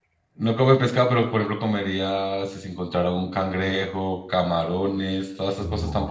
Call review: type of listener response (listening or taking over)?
taking over